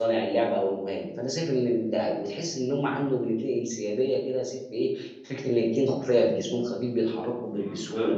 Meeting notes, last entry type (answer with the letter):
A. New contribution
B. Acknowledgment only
A